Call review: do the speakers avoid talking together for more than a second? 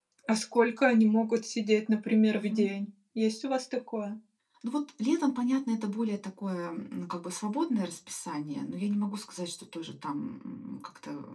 Yes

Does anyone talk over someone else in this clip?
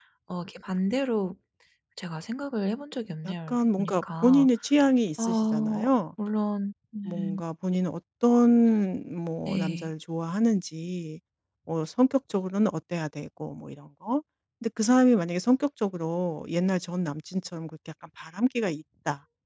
Yes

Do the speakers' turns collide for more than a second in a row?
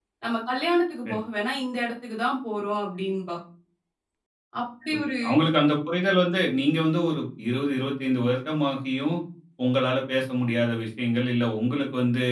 No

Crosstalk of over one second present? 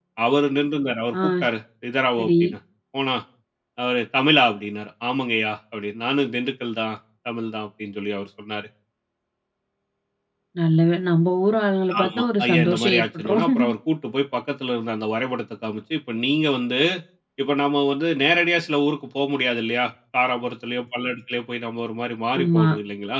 Yes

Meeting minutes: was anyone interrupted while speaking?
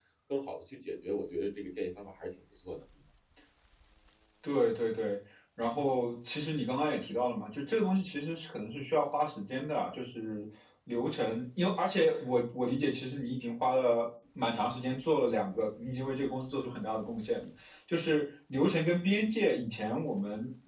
No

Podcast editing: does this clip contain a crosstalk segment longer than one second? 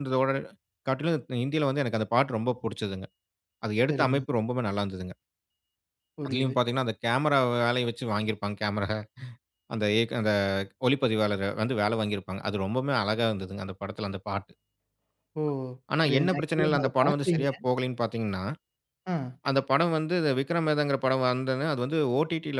Yes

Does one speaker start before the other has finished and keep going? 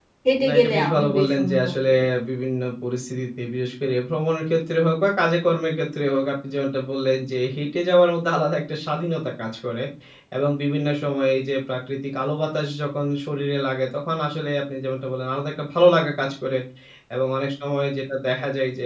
Yes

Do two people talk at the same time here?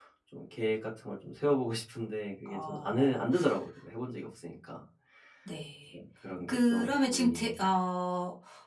Yes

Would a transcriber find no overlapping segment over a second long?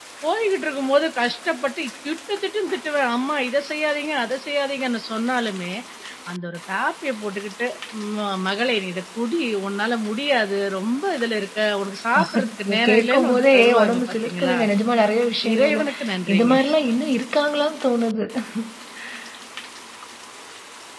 No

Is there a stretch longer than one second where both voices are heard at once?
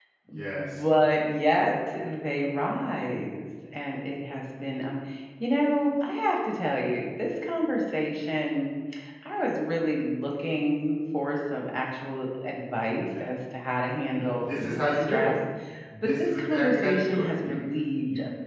Yes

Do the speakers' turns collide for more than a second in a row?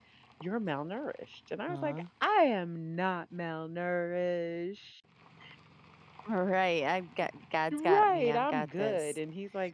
Yes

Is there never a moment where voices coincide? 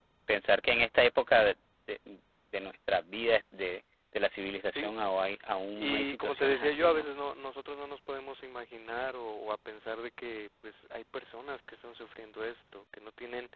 No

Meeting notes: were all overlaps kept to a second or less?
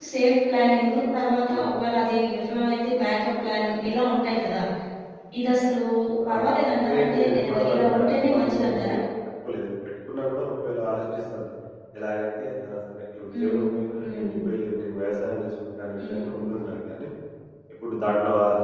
No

